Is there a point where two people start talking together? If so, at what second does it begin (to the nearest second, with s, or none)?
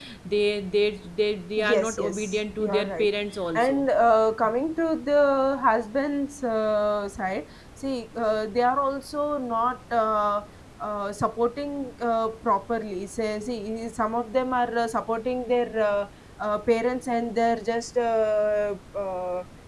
2 s